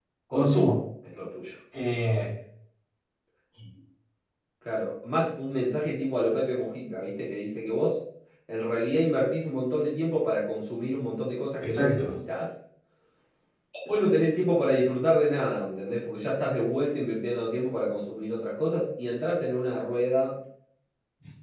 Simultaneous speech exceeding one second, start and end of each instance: none

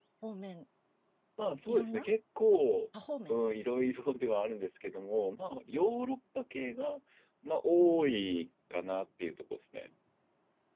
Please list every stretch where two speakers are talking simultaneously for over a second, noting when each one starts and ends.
none

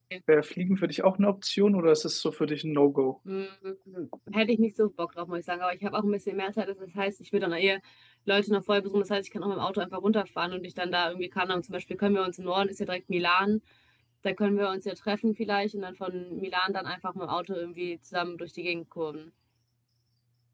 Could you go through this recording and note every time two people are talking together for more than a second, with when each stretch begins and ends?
none

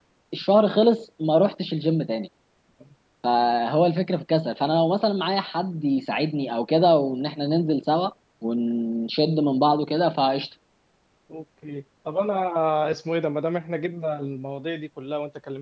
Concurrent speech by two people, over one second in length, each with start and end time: none

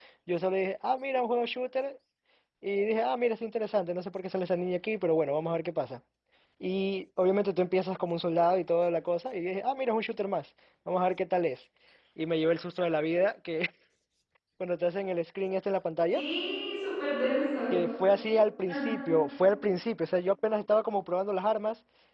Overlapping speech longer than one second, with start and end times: none

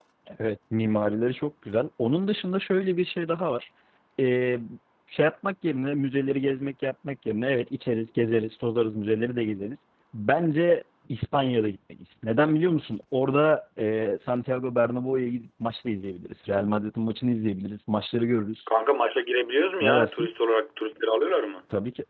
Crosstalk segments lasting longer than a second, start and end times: none

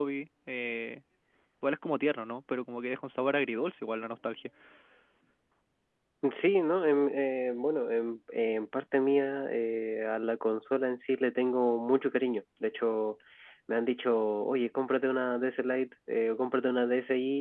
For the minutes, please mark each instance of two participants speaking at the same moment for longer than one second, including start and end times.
none

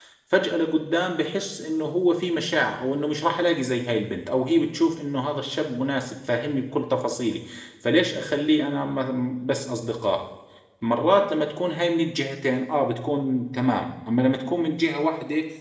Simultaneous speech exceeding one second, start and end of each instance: none

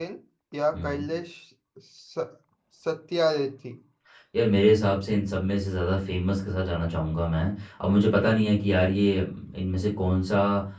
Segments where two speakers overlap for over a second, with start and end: none

